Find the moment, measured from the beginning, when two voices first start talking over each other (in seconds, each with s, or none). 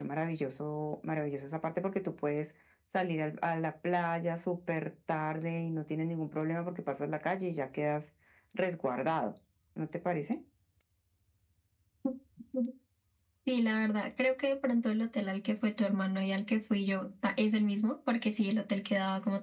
none